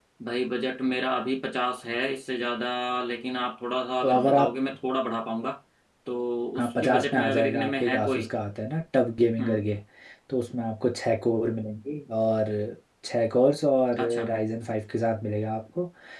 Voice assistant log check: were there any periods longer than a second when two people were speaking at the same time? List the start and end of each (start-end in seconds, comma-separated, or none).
6.6-8.2